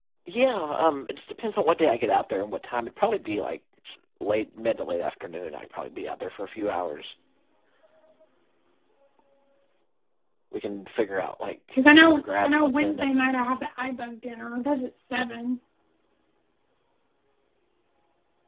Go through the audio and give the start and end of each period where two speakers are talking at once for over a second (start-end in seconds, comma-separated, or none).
11.8-13.3